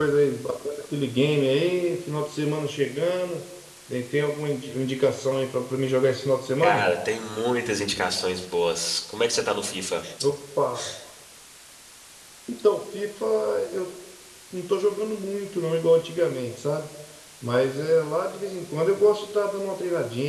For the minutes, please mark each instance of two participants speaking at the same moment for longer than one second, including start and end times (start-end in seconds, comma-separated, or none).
none